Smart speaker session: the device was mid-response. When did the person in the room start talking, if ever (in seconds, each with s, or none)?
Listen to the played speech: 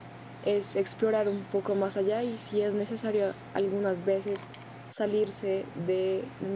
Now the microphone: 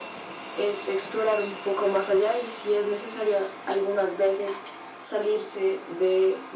none